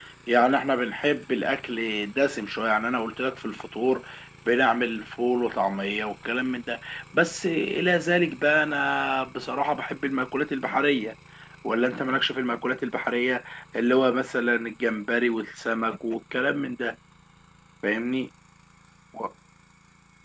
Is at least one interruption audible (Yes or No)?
No